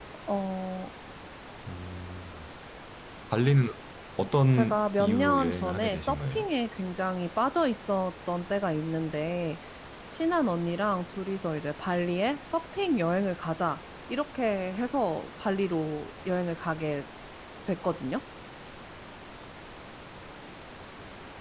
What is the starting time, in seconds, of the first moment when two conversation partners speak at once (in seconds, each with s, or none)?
4.5 s